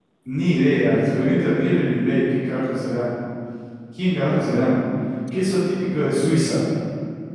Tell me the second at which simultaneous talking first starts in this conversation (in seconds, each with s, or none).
none